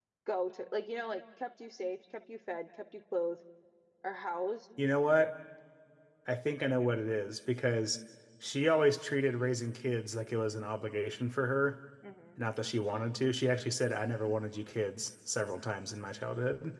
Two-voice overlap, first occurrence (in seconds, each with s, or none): none